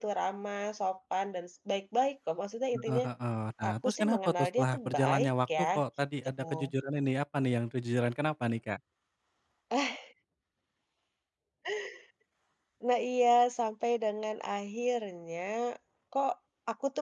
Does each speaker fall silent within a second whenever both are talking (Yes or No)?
No